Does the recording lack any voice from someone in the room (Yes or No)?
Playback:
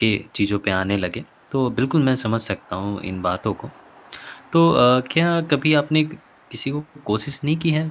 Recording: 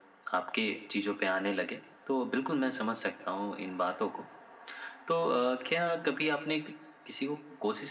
Yes